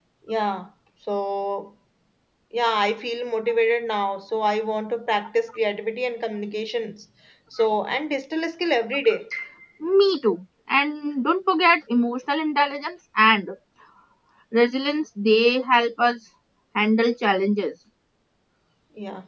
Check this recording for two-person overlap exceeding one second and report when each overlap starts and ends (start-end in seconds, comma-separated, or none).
none